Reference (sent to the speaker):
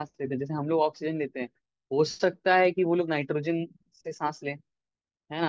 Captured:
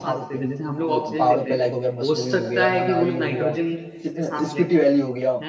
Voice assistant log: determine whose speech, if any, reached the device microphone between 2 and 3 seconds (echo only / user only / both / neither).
both